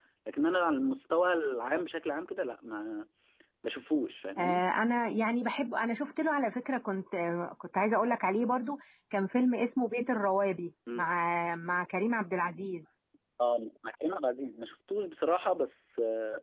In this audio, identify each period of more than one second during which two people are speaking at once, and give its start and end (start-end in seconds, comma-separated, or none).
none